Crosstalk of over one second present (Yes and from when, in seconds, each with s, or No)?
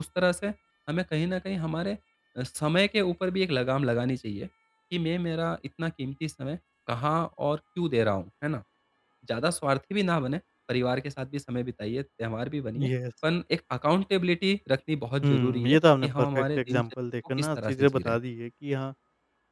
Yes, from 15.2 s